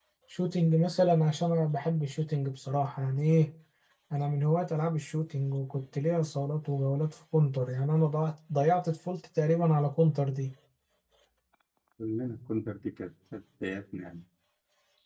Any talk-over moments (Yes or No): No